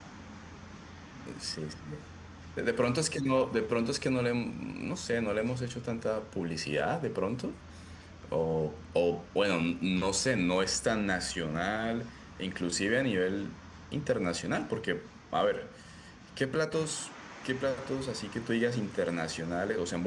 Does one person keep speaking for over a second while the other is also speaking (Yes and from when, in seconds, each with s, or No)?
No